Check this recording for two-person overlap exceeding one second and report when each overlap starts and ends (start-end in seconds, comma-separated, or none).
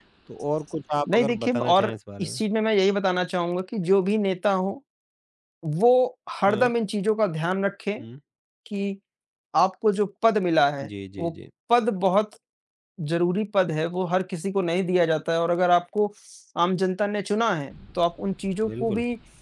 1.1-2.4